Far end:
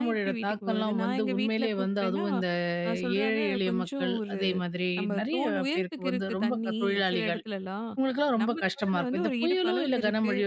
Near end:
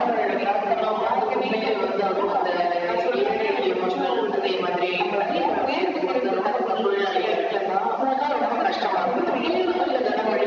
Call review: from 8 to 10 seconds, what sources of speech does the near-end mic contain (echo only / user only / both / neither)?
echo only